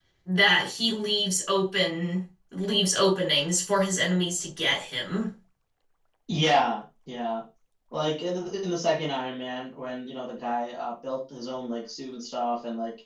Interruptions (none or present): none